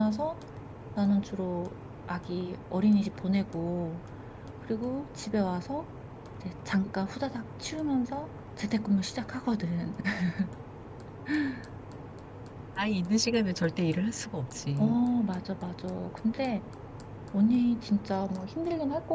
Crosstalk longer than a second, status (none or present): none